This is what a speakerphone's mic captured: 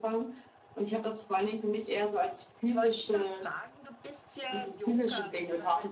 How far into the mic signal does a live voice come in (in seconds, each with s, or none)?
2.6 s